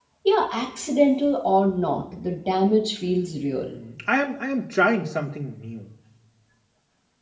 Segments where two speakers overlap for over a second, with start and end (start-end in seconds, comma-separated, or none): none